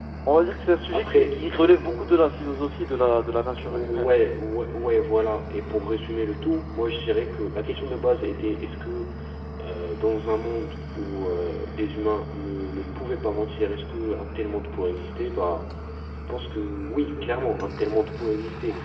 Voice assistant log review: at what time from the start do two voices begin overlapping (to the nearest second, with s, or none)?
1 s